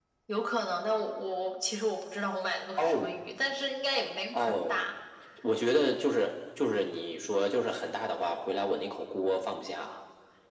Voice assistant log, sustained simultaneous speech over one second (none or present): none